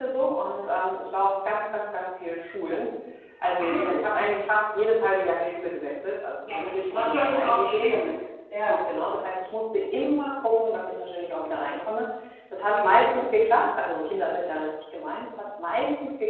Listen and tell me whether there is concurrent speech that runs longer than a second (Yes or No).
Yes